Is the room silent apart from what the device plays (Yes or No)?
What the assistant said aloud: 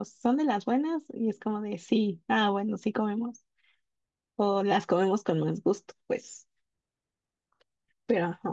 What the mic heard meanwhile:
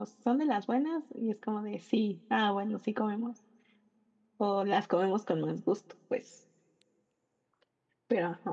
Yes